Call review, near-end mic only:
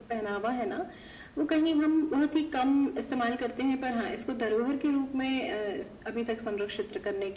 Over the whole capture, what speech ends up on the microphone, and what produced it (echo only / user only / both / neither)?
echo only